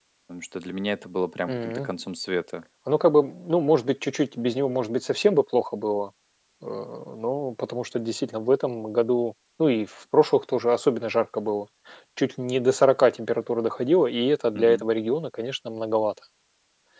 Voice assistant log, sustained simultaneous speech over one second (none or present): none